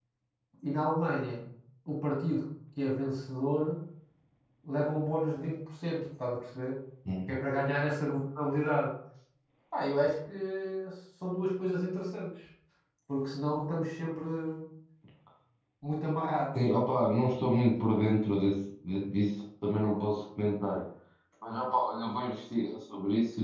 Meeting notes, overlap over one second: none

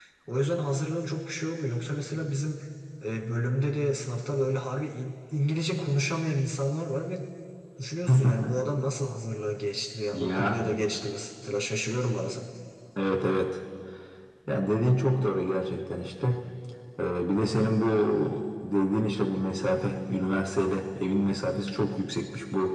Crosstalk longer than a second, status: none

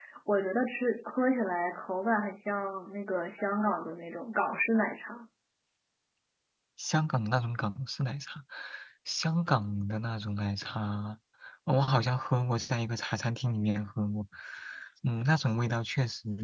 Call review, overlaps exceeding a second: none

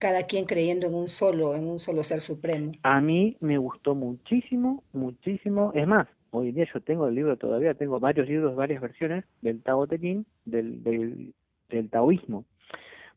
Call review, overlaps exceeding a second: none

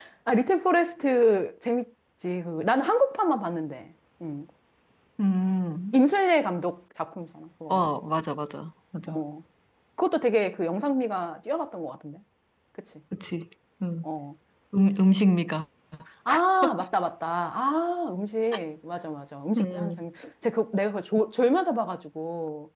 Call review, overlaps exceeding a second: none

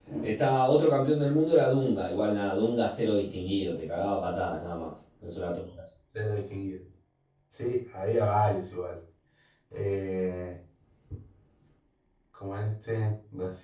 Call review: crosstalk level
none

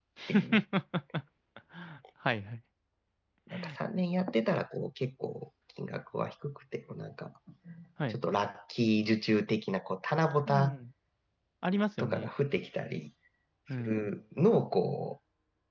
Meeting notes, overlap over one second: none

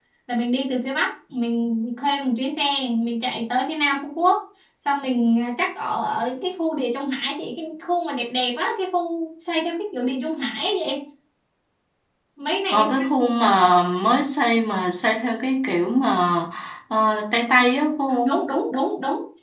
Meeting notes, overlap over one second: none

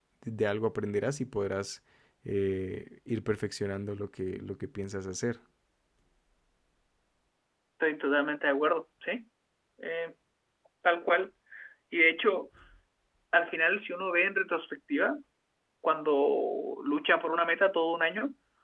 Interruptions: none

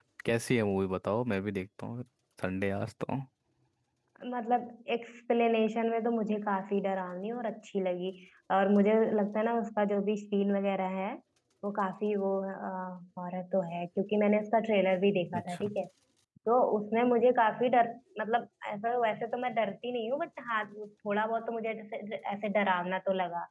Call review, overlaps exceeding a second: none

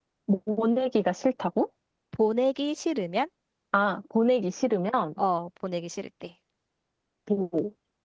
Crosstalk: none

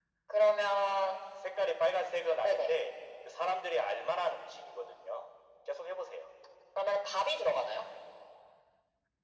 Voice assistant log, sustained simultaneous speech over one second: none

